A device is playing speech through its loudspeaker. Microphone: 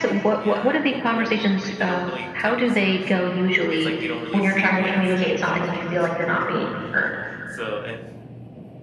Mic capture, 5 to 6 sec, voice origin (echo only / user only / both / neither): both